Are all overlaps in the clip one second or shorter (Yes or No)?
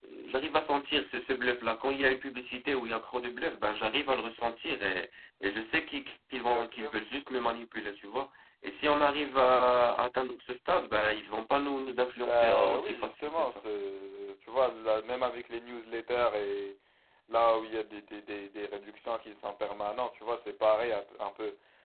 No